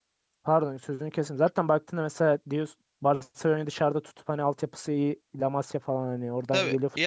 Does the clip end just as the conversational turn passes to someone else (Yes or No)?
Yes